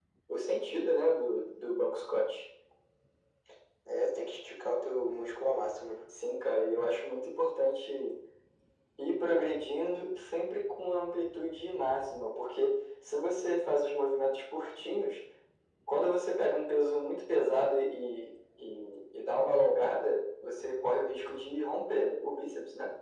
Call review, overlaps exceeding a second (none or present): none